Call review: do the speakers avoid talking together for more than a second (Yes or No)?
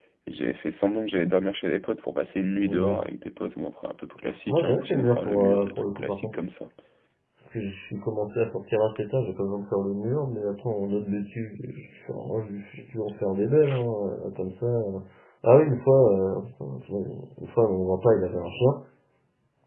No